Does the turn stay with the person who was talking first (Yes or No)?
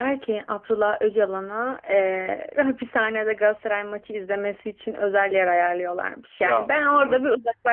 Yes